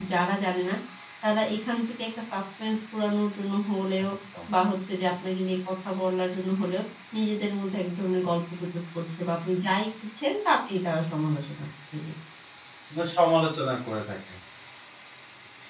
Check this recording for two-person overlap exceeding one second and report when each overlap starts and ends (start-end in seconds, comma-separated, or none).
none